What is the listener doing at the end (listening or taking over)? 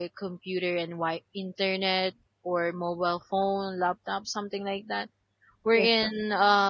listening